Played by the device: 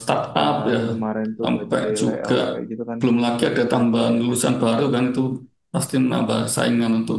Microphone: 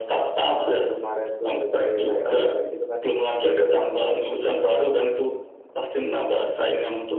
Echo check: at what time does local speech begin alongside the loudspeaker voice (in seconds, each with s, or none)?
none